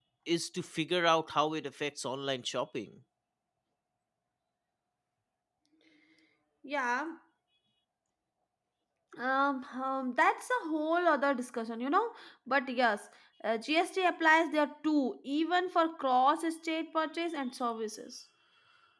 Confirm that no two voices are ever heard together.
Yes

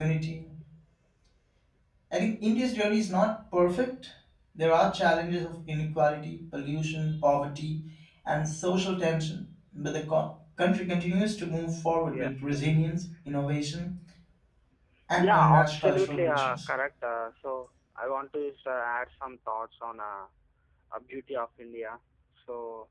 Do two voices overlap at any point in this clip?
Yes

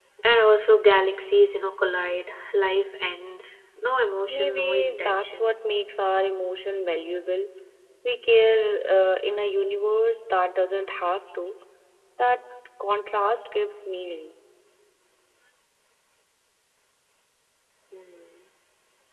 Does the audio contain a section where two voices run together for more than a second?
Yes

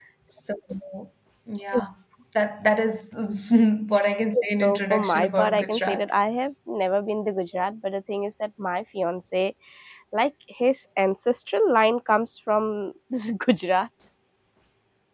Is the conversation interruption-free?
No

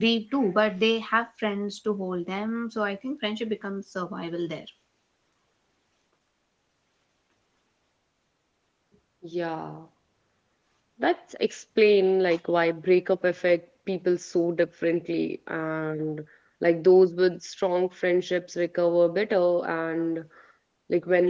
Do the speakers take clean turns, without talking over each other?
Yes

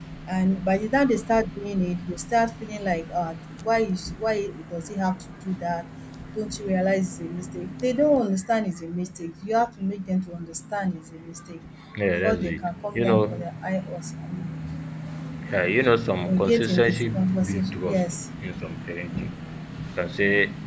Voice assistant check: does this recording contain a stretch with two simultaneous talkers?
Yes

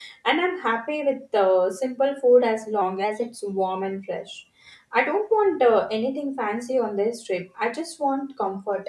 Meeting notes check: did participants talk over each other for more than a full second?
No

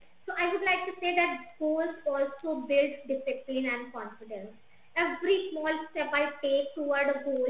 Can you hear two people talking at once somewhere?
No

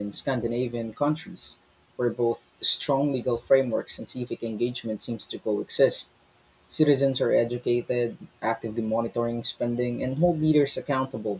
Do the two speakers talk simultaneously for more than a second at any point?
No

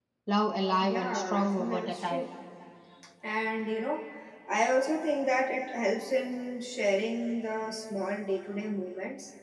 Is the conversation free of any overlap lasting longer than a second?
No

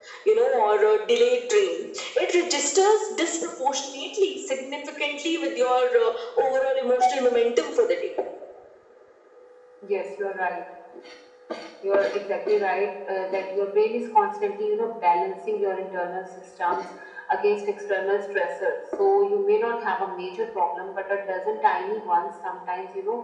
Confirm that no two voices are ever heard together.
Yes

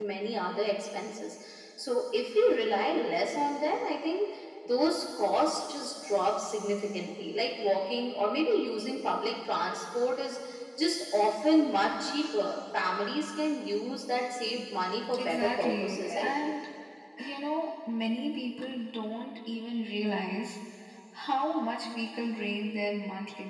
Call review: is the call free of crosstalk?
No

